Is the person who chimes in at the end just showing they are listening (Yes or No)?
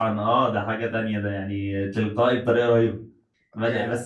Yes